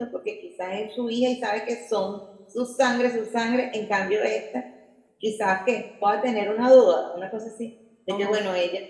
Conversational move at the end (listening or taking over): listening